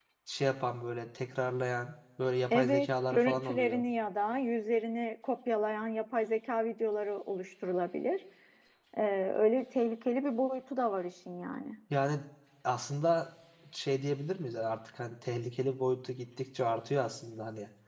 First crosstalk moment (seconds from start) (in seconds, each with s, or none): 2.5 s